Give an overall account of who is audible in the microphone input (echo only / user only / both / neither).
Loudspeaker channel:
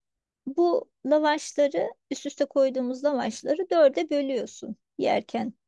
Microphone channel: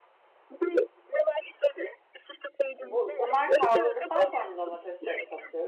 both